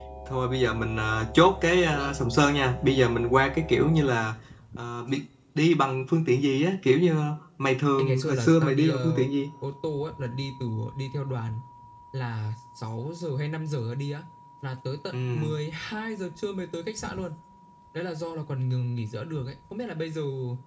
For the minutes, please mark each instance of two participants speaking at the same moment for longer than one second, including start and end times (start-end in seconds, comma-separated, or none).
8.0-9.2